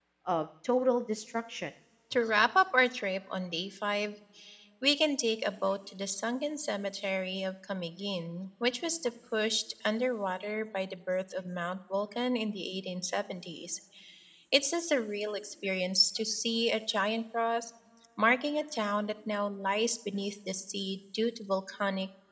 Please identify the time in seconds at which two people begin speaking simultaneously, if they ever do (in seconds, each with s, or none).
none